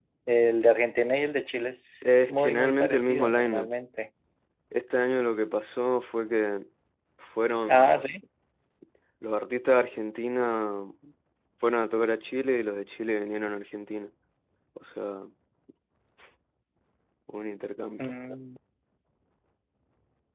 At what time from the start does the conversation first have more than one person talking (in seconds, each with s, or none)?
2.0 s